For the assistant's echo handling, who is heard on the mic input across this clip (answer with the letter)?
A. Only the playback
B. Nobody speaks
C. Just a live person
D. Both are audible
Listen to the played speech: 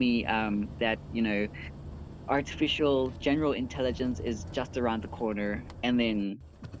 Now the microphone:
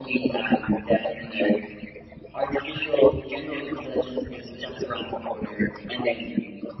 A